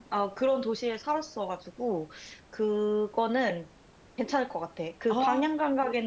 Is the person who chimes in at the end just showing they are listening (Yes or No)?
Yes